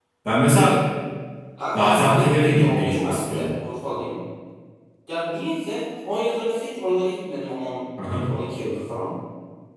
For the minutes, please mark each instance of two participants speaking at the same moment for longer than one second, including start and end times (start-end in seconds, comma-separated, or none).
1.7-3.5